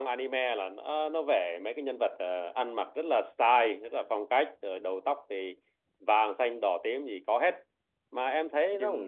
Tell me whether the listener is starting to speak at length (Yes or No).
Yes